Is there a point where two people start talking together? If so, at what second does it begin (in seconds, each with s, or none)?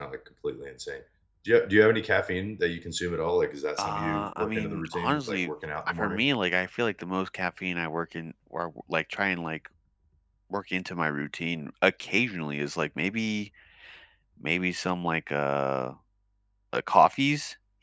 3.8 s